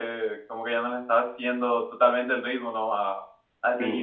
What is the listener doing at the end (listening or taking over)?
taking over